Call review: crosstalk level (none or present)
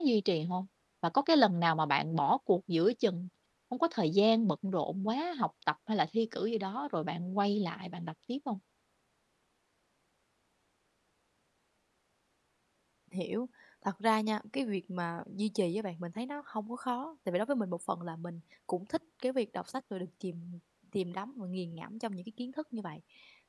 none